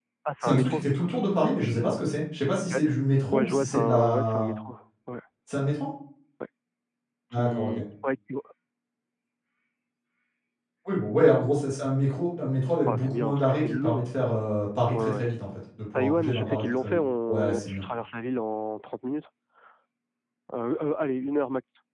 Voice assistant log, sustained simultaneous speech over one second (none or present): present